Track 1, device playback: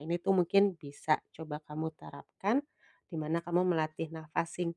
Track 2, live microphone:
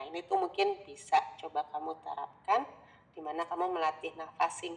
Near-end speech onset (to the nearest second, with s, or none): none